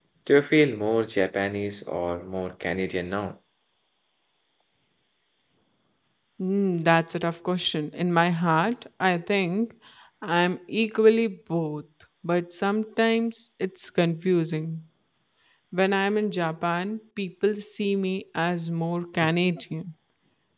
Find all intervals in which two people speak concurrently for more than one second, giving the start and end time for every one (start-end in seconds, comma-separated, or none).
none